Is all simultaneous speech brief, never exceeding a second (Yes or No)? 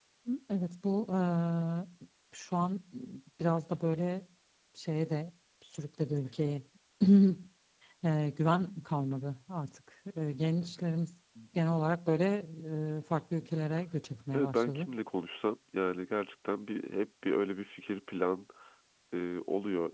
Yes